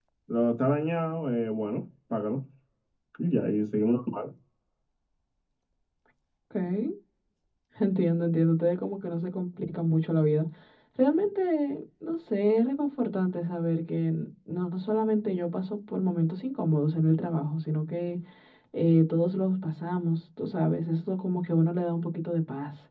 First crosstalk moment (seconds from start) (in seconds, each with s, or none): none